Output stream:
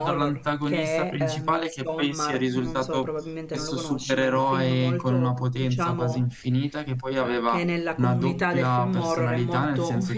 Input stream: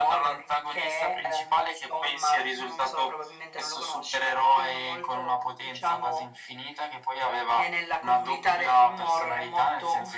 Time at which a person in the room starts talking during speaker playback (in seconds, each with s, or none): none